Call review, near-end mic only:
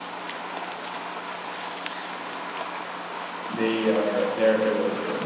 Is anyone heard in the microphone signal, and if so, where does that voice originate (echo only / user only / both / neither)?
user only